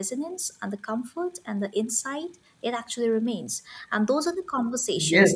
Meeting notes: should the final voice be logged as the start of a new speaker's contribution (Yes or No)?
No